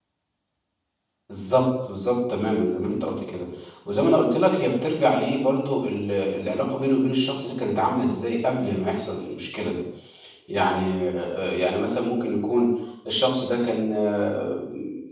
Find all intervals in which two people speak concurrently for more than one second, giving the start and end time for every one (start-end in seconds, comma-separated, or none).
none